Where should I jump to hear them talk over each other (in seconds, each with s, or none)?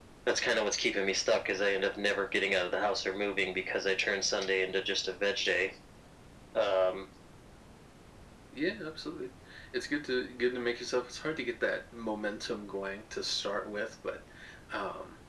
none